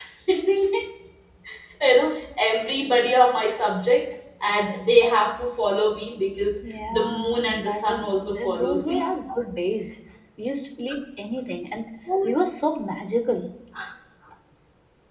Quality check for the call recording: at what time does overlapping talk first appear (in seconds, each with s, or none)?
6.6 s